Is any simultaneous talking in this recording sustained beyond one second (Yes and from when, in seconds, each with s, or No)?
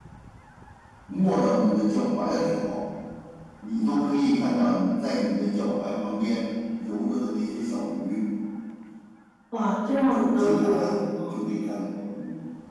Yes, from 10.1 s